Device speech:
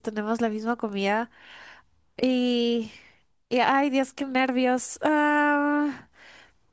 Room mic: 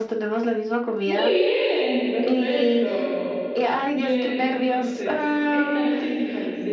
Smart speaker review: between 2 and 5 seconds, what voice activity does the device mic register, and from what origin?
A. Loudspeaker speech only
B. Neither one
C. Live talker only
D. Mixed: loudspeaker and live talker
D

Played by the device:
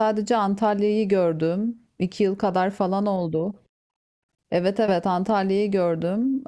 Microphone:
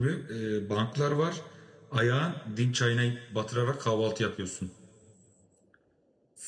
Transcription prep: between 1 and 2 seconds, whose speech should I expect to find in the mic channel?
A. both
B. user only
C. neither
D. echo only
B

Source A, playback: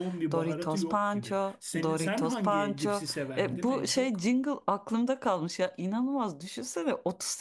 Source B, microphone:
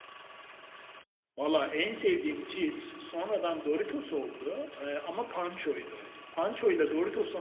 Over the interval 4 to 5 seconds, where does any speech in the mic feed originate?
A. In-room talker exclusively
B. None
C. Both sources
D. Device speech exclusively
A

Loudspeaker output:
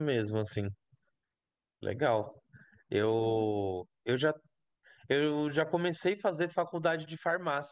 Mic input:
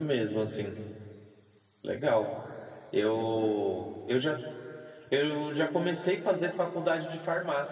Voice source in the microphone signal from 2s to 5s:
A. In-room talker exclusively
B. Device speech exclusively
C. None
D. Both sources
B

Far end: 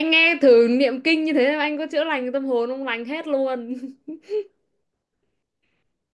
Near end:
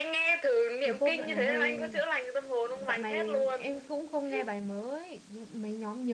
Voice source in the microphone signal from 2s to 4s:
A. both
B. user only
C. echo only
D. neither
A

